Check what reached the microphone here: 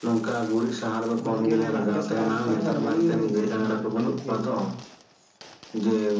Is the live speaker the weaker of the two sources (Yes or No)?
Yes